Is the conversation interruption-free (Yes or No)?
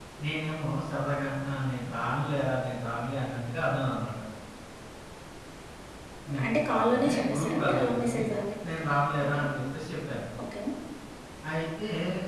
No